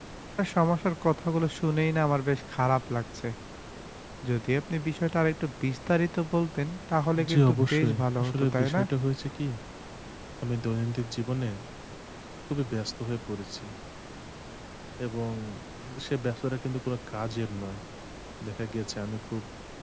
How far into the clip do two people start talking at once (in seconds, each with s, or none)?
7.2 s